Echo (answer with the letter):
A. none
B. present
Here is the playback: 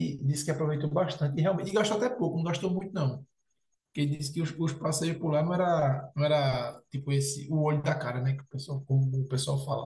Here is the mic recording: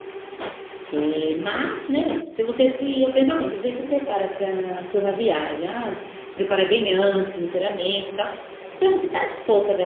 A